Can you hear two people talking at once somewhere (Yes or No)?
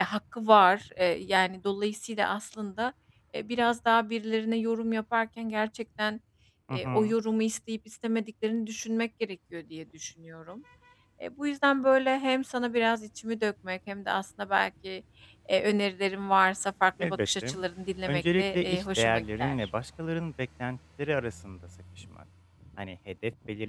Yes